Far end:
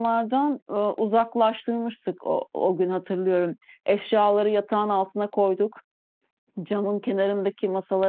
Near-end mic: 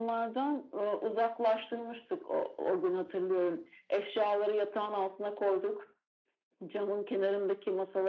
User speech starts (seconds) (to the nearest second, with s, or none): none